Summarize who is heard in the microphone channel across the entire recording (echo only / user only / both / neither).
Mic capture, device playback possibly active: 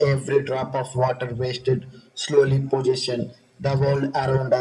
echo only